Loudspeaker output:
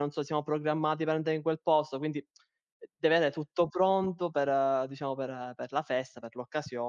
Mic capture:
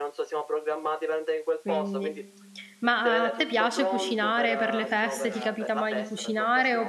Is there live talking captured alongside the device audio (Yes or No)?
Yes